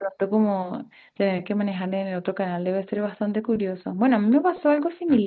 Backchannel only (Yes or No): Yes